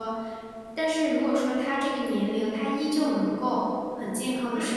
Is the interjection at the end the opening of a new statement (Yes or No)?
No